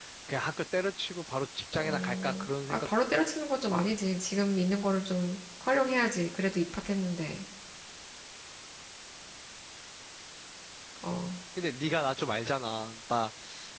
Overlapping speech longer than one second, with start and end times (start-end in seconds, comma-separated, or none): 1.8-3.2